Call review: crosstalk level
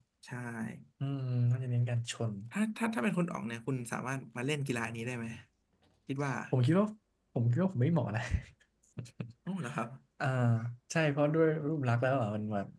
none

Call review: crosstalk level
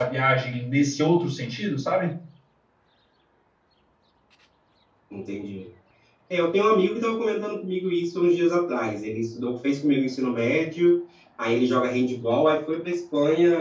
none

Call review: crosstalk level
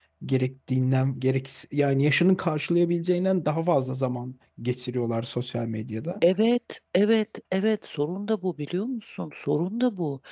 none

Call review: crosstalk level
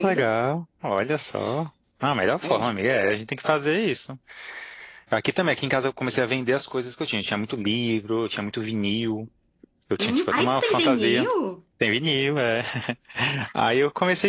present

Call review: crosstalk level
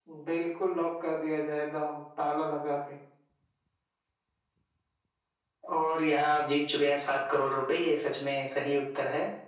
none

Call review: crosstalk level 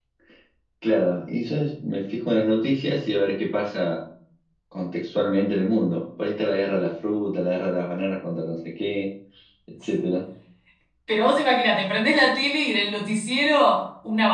none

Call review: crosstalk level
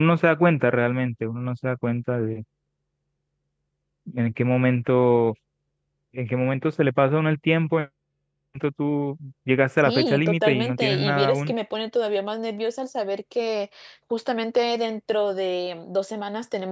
present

